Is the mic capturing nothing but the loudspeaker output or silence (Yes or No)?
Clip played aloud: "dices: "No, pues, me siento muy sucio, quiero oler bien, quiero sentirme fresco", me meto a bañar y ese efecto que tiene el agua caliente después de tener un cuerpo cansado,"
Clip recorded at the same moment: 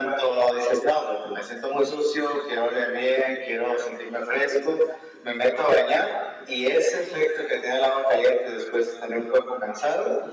Yes